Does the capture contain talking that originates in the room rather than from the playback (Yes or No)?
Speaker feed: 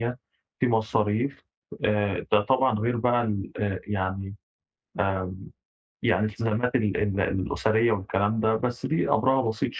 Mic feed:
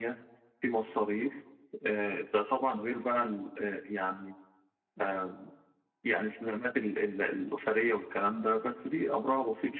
No